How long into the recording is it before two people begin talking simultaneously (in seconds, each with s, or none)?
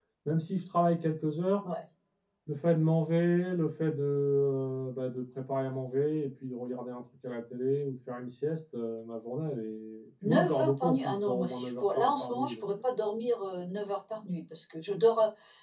10.2 s